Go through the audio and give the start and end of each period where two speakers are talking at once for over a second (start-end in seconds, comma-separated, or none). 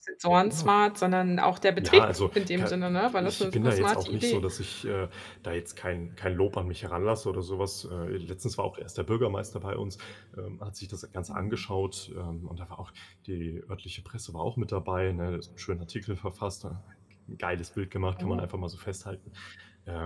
1.8-4.4